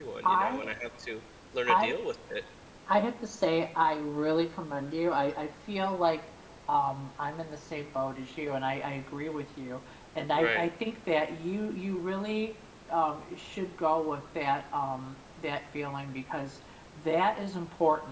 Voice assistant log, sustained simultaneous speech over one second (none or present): none